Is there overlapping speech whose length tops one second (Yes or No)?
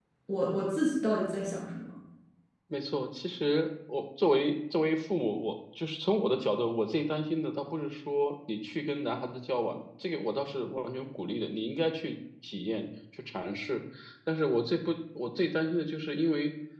No